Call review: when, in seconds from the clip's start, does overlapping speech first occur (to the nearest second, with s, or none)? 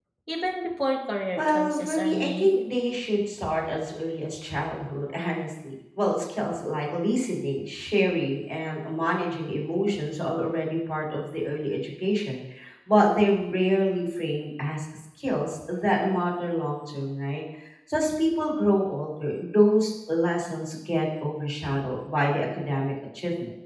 1 s